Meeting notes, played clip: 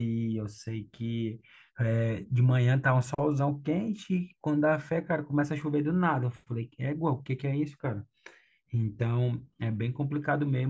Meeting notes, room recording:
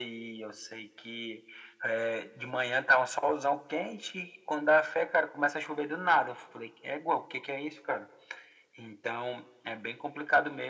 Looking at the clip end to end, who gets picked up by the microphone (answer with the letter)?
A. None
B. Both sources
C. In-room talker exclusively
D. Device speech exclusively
D